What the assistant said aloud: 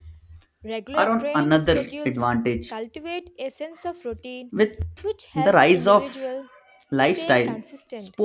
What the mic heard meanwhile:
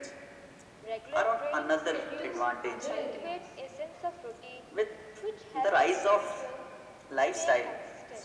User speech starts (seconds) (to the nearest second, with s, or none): 2 s